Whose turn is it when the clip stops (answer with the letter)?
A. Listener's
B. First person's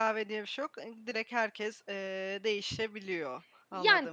A